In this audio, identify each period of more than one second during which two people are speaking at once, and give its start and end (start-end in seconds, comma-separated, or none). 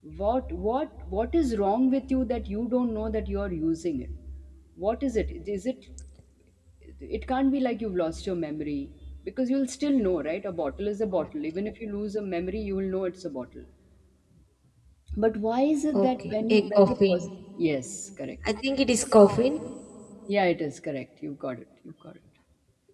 15.9-17.3